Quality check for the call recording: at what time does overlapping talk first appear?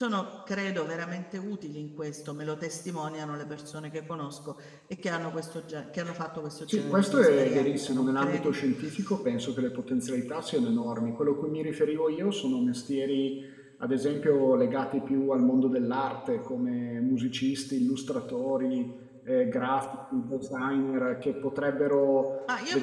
6.7 s

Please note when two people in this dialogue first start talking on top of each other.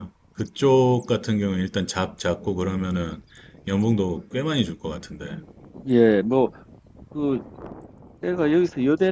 none

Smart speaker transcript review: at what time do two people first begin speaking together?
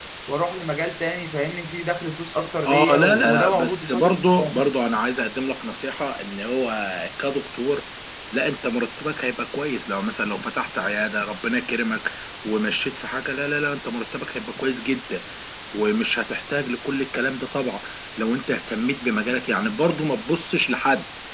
2.6 s

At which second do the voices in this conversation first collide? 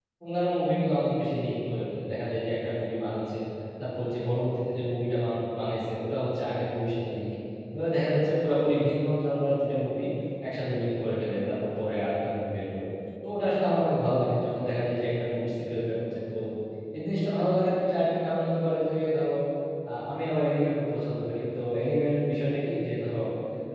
none

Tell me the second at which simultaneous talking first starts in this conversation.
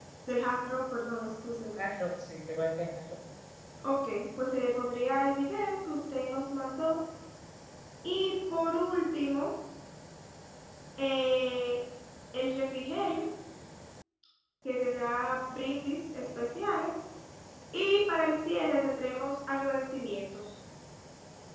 none

